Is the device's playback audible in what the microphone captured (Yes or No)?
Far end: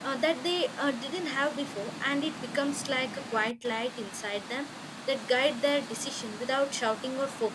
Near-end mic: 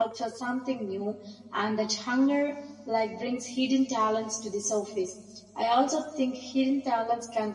No